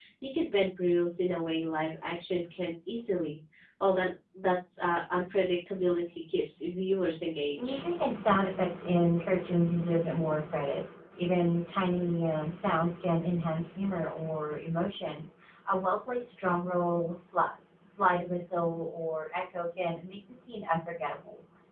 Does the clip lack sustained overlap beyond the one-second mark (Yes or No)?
Yes